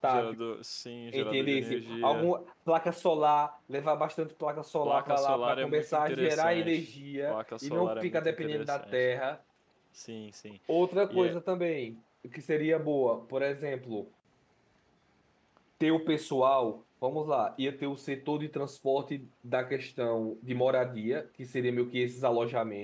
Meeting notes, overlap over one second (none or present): present